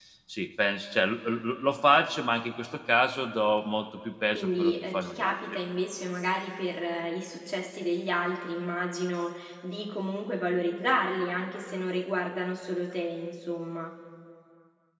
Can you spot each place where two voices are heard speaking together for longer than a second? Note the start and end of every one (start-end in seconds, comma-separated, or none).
4.3-5.6